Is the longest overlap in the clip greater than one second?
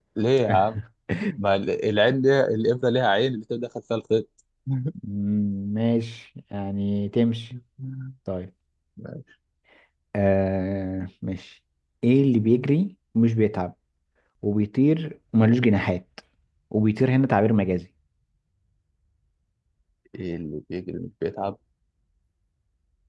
No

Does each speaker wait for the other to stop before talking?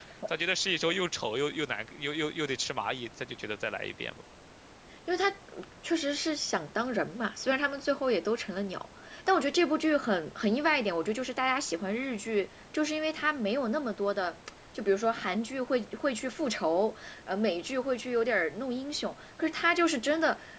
Yes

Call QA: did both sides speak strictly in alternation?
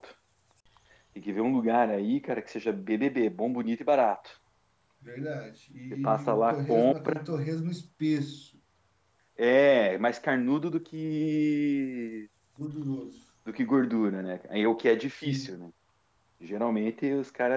No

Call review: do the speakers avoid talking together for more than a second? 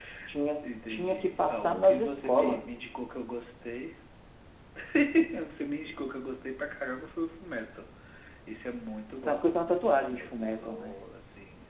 No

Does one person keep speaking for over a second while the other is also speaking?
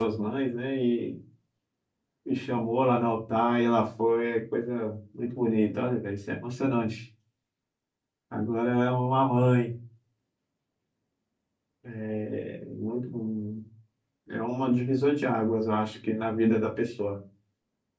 No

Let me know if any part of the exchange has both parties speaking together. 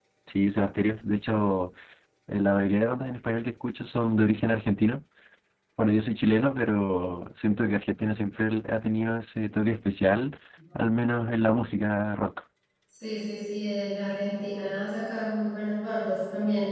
No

